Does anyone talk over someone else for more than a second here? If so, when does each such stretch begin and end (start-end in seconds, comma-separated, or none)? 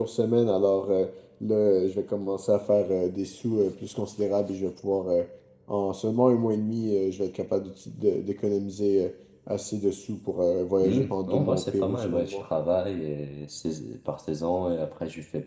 10.8-12.4